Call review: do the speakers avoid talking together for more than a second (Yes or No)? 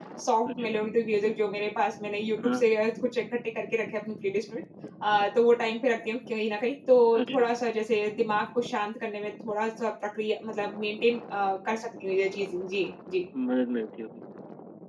Yes